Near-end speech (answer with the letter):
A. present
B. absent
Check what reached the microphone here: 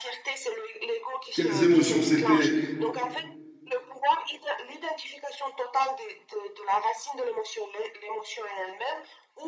A